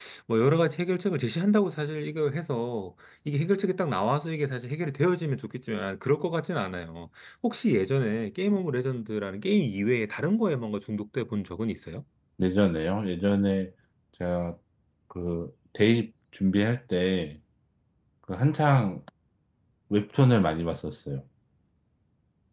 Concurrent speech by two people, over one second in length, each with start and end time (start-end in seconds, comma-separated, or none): none